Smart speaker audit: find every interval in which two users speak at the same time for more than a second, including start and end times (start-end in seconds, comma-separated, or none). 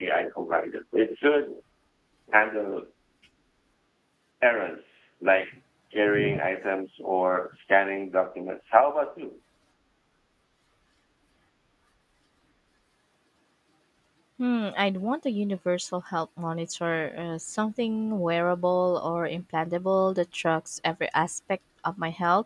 none